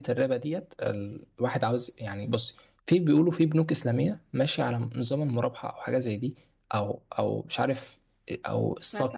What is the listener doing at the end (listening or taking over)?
listening